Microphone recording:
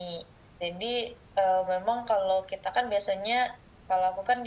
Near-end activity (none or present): none